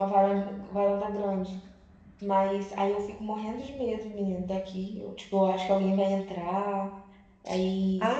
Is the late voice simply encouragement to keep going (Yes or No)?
No